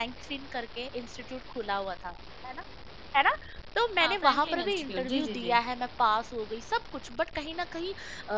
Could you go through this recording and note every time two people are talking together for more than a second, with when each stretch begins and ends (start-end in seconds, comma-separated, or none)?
4.0-5.6